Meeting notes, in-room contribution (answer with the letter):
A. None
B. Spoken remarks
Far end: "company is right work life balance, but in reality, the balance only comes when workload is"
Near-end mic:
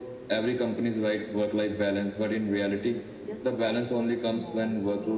B